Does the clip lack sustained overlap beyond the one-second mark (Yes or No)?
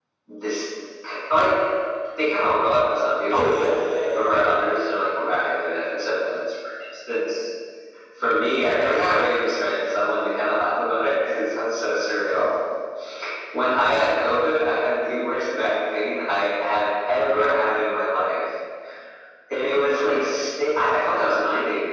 Yes